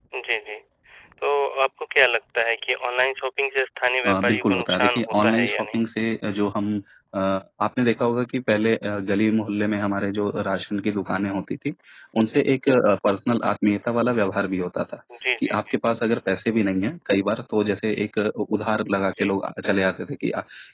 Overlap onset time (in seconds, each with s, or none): 4.0 s